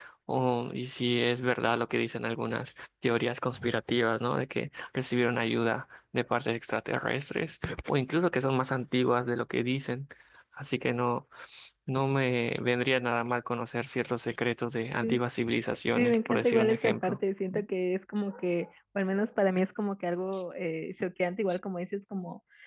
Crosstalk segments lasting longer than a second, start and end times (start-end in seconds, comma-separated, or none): 15.9-17.2